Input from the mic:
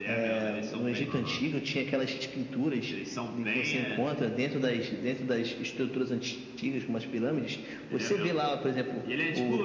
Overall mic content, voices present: both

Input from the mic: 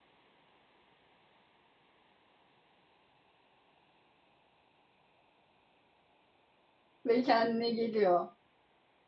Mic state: user only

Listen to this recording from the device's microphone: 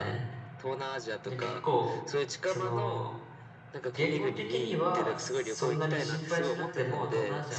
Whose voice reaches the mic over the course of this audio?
both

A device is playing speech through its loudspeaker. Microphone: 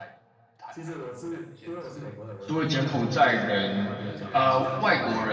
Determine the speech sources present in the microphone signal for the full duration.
both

